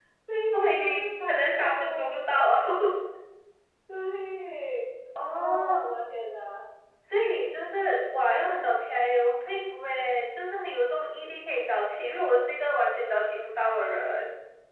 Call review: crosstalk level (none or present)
present